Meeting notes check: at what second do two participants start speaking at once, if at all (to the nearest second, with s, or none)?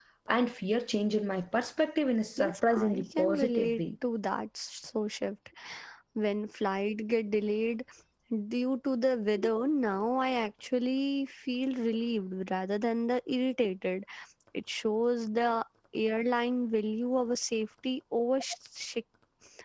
2 s